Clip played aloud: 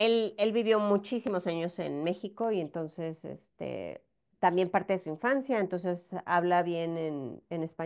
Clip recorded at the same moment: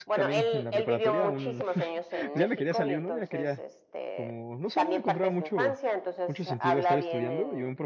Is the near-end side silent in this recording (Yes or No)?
No